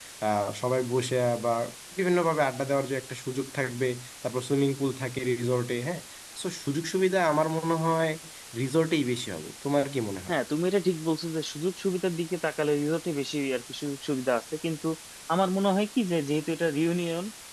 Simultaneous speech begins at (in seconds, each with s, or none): none